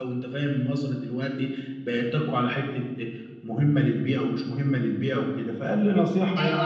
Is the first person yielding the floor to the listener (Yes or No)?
Yes